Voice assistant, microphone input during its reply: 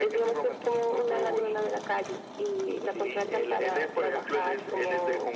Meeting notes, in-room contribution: none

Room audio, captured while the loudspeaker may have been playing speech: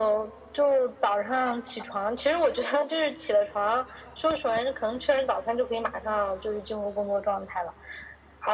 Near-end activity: none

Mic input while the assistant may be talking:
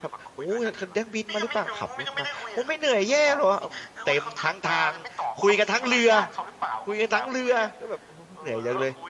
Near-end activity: present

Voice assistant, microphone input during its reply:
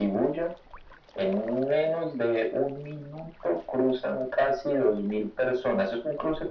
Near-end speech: none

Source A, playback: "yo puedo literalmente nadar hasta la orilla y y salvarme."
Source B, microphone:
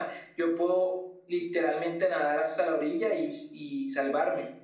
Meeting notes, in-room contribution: none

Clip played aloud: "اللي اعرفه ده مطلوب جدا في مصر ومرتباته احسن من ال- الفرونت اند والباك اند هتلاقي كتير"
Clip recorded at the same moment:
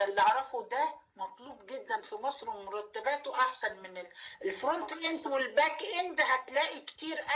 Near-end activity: none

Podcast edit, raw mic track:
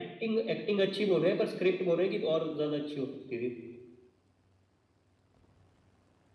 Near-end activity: none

